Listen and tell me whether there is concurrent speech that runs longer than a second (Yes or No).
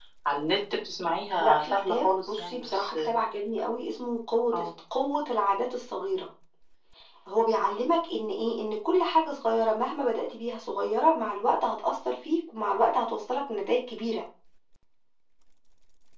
Yes